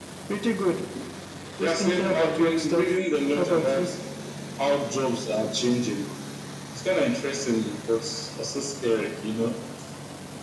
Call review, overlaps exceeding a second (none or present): present